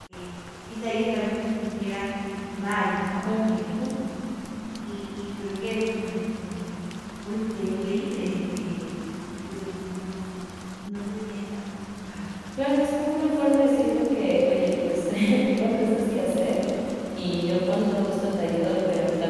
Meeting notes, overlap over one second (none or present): none